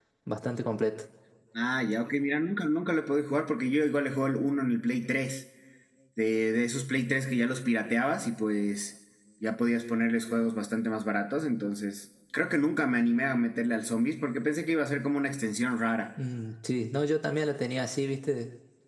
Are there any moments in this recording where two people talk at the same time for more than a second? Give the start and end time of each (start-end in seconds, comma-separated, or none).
none